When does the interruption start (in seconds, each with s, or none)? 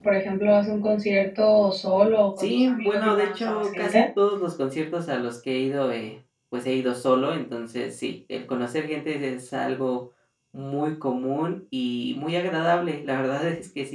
2.4 s